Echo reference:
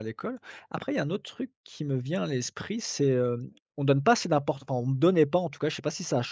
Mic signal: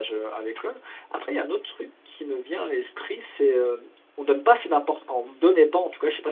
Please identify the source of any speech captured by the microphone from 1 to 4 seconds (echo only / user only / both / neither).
echo only